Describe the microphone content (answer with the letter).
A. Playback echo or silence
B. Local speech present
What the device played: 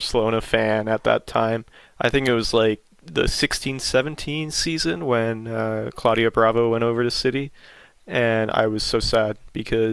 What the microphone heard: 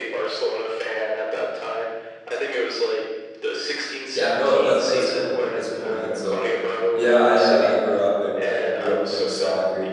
B